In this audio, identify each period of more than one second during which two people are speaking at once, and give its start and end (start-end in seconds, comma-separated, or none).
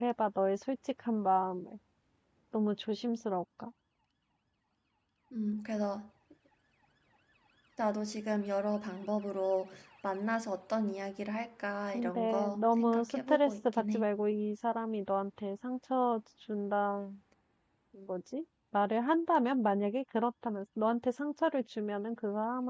11.9-14.0